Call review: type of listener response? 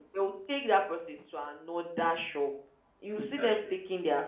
listening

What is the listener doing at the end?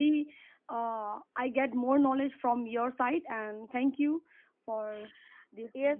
taking over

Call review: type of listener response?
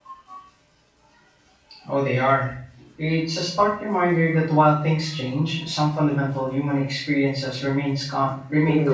taking over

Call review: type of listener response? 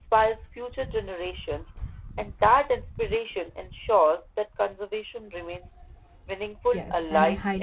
taking over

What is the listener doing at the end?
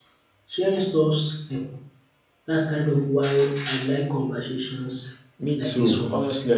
taking over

